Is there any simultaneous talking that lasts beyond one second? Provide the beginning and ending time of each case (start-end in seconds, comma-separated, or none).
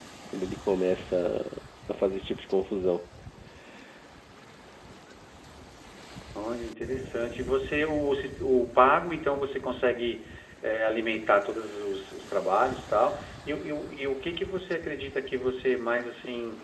none